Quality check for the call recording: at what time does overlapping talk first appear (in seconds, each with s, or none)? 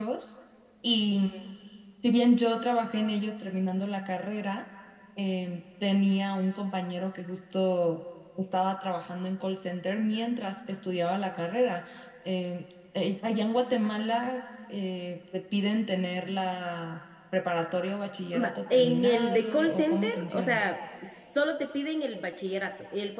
18.3 s